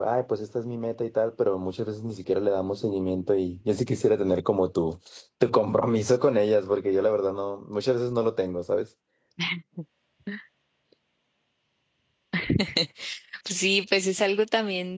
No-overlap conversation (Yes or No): Yes